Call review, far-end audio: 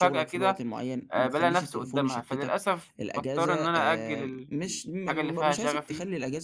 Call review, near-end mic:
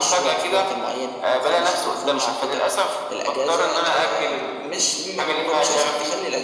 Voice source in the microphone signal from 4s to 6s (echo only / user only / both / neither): echo only